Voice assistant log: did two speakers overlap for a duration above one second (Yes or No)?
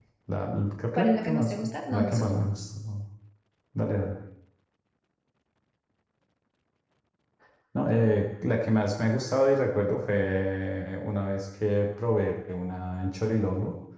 Yes